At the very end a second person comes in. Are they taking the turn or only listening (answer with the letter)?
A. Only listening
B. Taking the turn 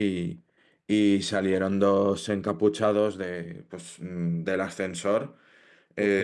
B